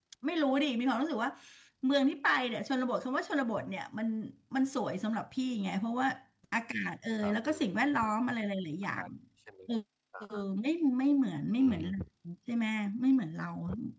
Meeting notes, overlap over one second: none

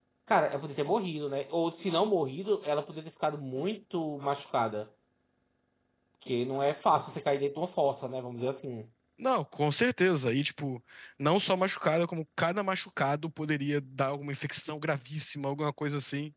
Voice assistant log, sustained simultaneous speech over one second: none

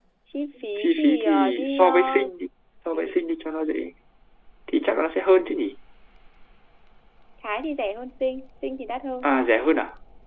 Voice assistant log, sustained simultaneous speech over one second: present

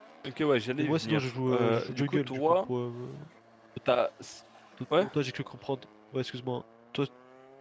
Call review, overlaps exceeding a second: present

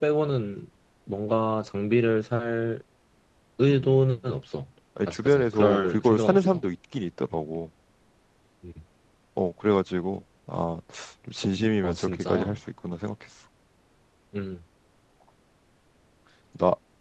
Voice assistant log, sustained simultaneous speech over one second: present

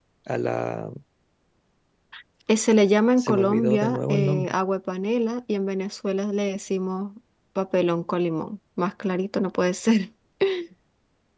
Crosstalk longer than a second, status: present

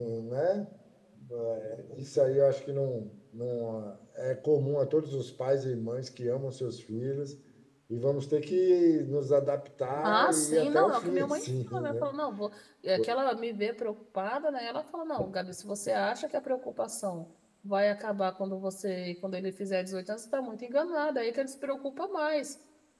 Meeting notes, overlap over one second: present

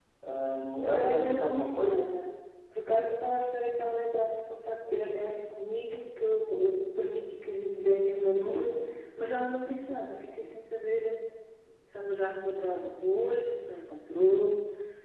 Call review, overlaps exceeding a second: present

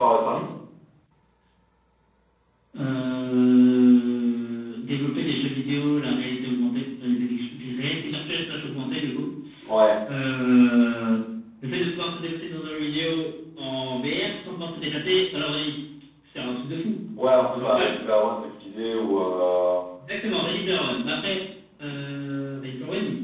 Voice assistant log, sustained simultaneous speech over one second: none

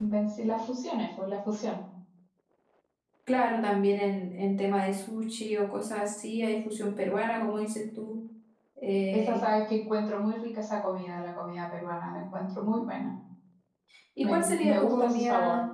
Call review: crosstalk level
present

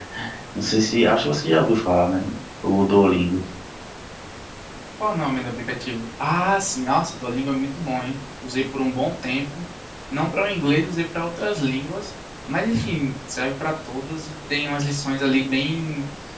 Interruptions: none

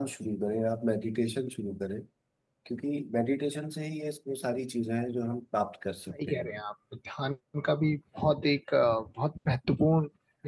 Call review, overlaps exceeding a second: none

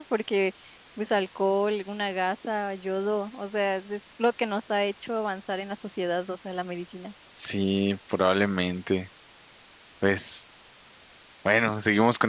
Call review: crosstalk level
none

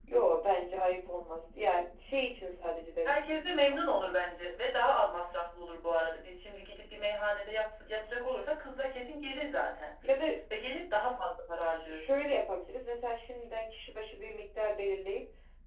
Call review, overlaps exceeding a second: none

